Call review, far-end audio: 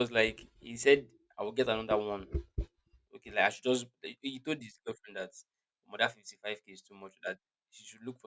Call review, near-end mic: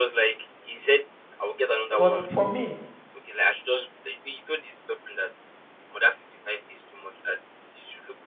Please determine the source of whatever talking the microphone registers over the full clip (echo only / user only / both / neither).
both